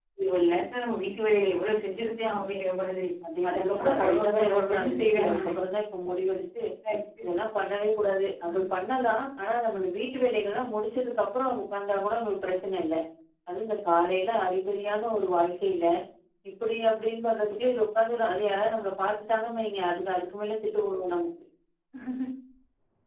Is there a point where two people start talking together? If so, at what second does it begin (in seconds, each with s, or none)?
3.5 s